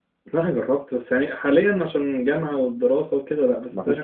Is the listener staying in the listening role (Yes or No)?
Yes